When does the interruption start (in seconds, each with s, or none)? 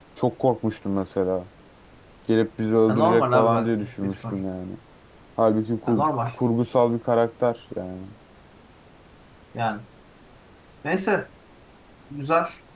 2.9 s